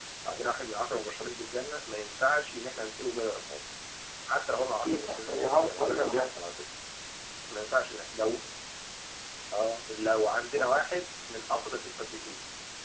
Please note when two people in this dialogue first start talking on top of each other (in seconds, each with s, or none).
4.8 s